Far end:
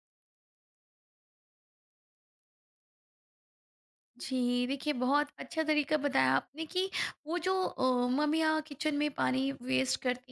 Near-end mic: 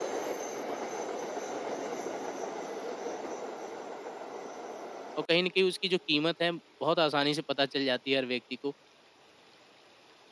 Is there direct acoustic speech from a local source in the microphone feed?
Yes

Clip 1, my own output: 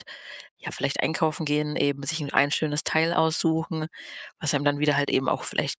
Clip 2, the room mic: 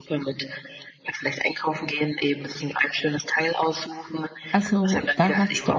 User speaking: Yes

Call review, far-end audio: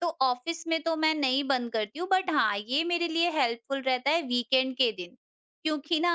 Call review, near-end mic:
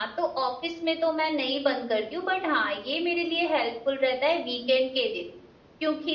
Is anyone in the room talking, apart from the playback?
No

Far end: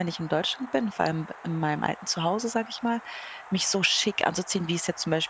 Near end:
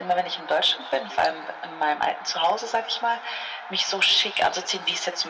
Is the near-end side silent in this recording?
Yes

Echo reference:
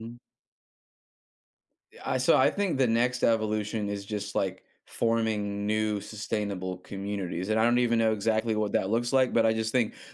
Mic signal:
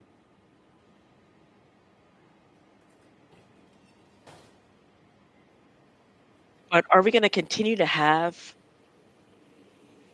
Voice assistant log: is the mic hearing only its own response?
No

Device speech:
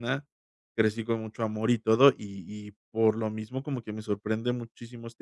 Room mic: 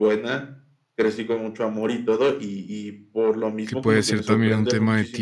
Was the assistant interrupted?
Yes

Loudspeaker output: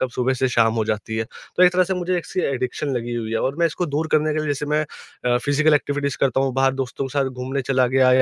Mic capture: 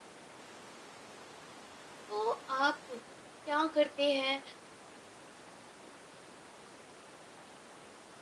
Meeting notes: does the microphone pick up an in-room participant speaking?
Yes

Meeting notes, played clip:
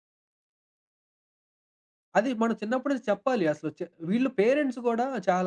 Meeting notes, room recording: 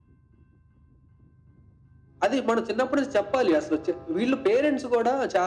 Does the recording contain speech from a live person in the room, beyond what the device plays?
No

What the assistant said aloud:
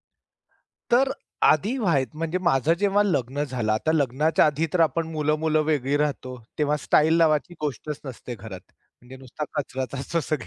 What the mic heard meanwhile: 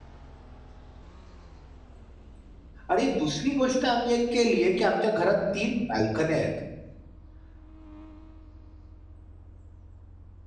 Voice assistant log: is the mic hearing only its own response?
No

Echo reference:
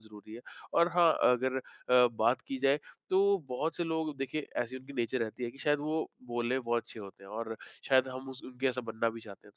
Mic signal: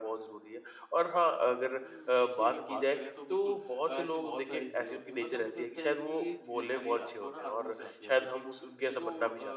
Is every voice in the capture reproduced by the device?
No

